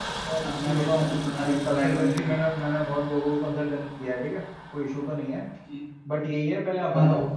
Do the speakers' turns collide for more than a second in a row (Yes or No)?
Yes